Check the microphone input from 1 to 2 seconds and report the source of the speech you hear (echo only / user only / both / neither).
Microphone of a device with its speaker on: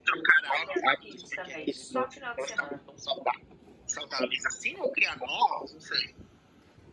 both